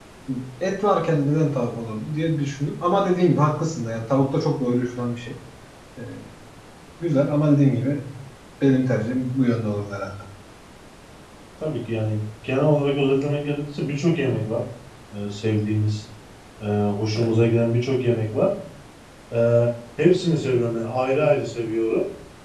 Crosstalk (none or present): none